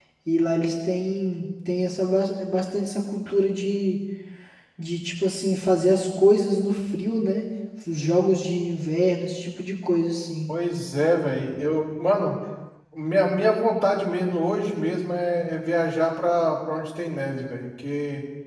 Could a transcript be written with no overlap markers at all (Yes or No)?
Yes